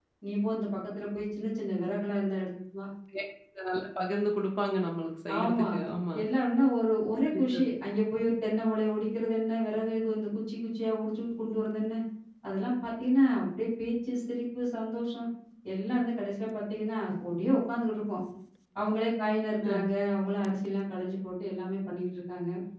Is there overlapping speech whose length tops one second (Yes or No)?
No